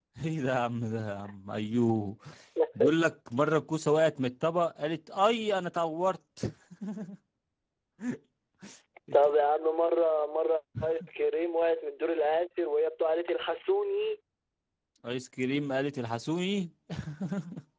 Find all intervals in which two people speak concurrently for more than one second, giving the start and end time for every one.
none

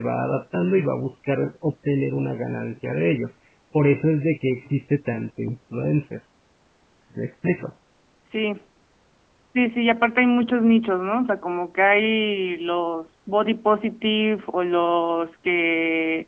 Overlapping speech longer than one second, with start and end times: none

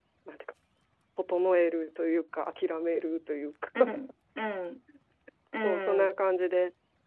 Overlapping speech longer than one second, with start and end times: none

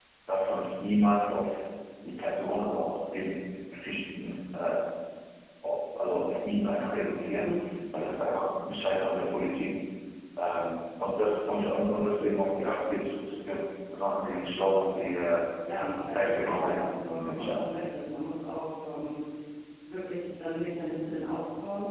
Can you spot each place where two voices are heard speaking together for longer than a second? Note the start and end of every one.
16.1-17.6

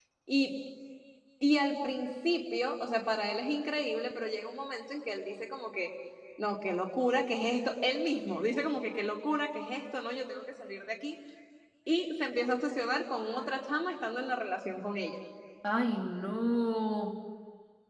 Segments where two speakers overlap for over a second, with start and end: none

